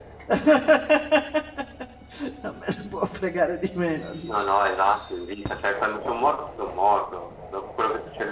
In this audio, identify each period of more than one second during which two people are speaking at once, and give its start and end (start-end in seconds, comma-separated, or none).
none